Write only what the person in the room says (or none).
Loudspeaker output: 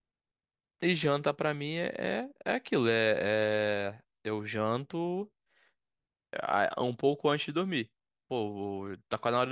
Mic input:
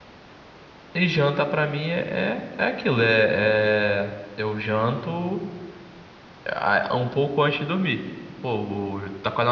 none